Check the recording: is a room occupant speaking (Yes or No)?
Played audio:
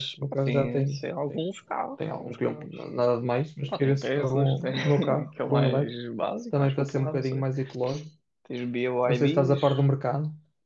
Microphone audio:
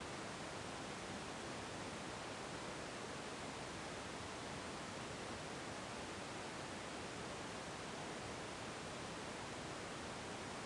No